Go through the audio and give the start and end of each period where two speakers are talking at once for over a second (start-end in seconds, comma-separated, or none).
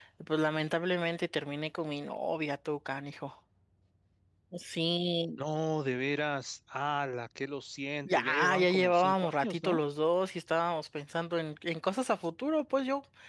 8.1-9.8